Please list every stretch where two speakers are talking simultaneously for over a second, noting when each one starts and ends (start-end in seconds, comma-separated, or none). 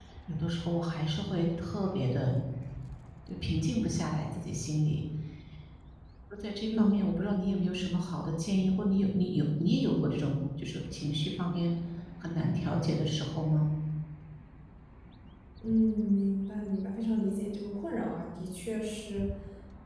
none